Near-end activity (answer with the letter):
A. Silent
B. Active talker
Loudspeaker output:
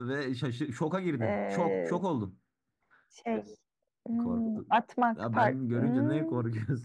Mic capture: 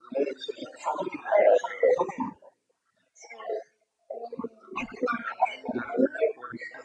A